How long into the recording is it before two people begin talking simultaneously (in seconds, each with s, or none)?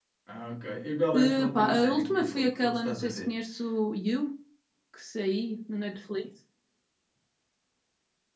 1.1 s